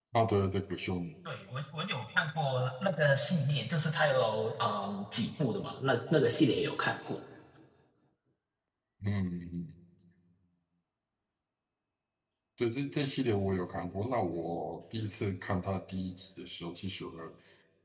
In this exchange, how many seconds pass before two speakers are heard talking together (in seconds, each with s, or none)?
none